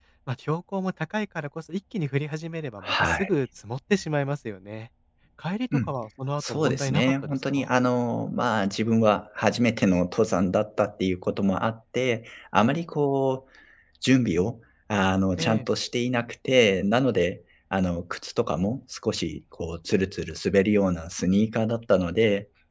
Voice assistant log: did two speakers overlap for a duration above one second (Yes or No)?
Yes